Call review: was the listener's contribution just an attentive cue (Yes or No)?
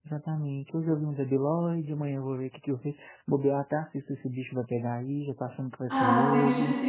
No